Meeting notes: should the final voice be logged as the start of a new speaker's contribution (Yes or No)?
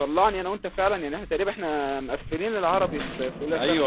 Yes